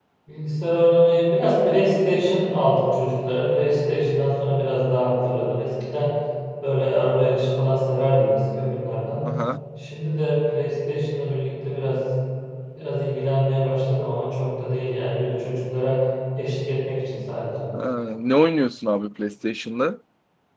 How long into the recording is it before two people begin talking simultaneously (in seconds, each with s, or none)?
none